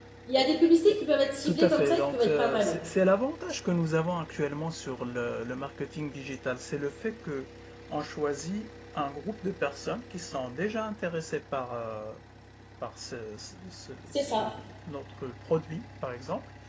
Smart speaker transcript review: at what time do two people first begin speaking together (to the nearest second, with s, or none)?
1 s